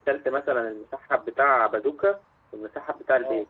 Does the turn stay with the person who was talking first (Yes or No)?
Yes